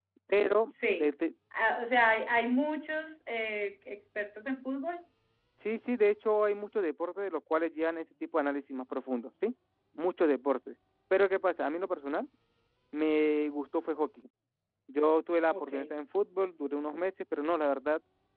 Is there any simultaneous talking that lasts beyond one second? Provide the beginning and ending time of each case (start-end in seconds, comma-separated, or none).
none